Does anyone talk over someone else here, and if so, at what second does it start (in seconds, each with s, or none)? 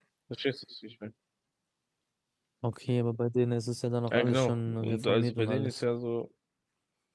4.1 s